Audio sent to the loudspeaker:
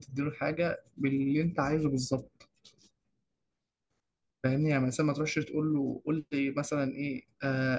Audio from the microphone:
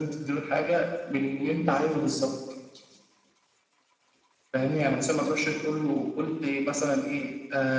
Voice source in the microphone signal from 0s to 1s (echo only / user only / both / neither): echo only